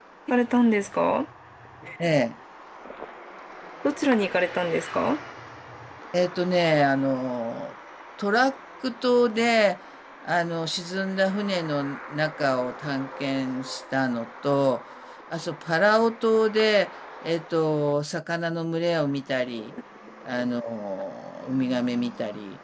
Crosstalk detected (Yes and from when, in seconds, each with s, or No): No